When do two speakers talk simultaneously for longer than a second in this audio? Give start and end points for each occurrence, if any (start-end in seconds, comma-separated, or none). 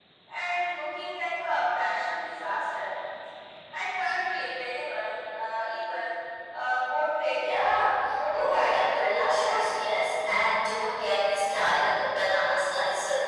8.3-9.7